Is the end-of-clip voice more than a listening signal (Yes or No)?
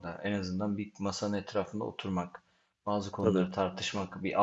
No